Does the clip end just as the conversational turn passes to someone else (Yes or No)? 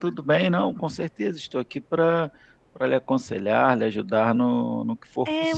Yes